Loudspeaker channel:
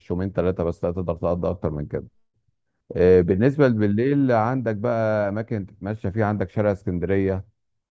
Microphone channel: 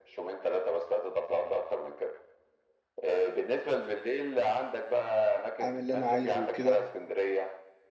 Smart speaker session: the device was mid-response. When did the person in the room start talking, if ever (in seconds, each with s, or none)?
5.6 s